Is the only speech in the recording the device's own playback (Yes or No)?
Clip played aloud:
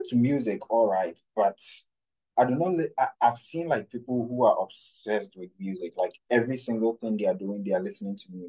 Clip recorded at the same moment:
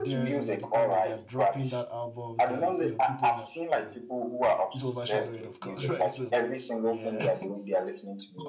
No